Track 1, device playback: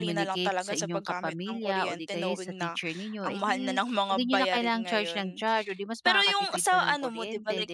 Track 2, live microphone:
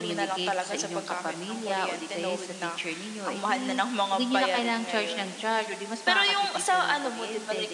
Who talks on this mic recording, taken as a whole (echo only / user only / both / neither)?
echo only